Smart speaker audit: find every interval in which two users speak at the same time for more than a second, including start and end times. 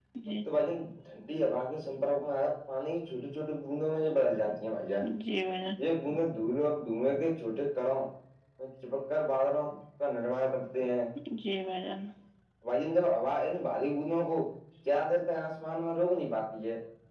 none

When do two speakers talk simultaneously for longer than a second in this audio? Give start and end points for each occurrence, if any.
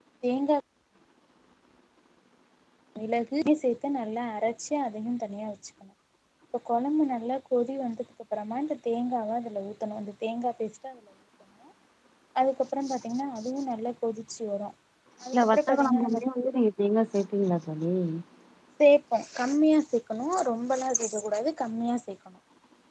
15.3-16.6

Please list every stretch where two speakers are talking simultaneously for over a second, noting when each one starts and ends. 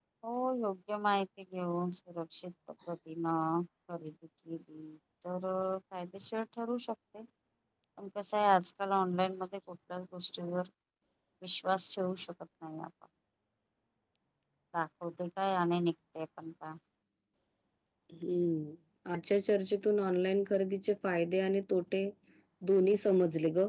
none

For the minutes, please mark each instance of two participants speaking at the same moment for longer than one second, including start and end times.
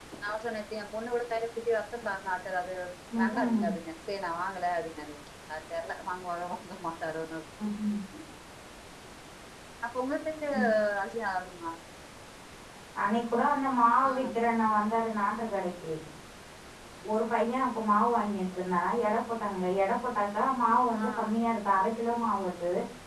none

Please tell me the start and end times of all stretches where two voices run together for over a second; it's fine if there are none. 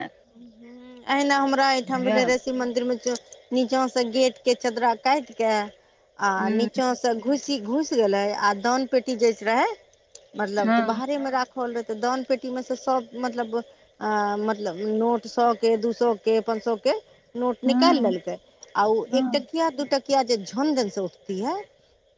none

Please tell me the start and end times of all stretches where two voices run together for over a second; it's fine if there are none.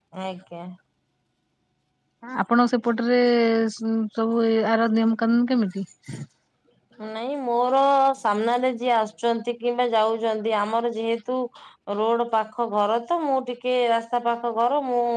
none

